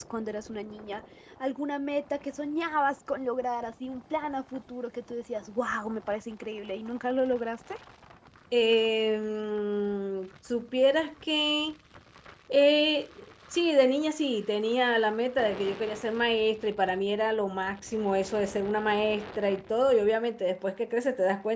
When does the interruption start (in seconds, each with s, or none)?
none